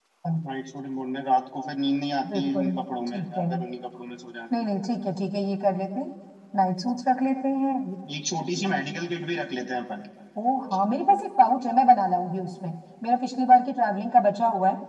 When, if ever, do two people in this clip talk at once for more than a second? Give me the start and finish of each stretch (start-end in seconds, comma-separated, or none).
none